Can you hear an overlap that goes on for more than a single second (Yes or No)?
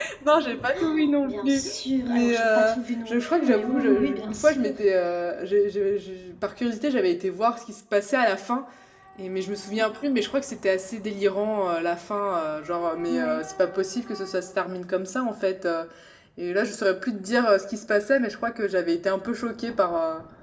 Yes